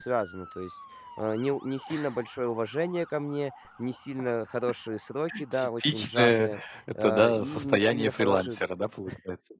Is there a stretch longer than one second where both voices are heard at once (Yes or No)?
Yes